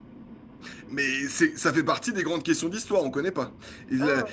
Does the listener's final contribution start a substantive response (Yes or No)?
Yes